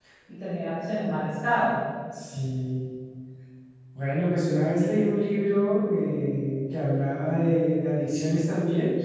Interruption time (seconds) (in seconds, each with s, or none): none